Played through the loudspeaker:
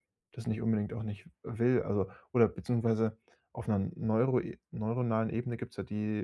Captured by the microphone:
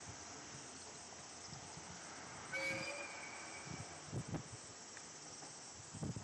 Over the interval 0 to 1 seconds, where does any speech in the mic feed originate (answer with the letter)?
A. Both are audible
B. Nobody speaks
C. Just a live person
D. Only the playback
B